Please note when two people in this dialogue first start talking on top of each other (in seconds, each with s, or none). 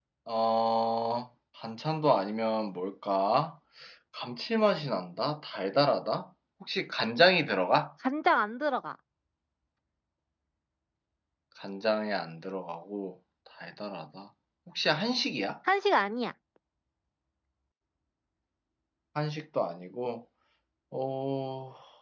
none